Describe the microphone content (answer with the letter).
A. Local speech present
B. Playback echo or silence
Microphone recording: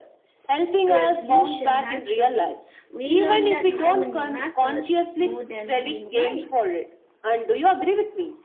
A